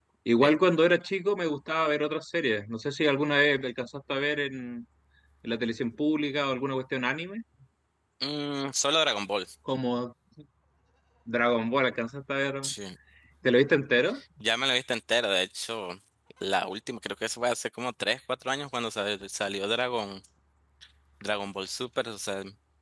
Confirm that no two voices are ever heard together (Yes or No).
Yes